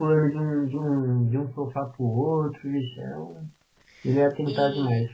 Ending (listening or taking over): taking over